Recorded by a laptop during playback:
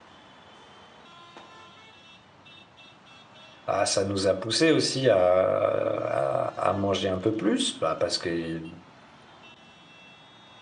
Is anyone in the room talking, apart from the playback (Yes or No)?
Yes